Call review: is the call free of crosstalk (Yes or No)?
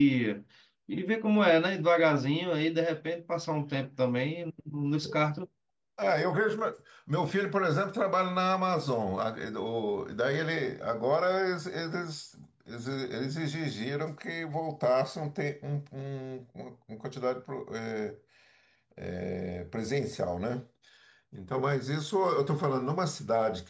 Yes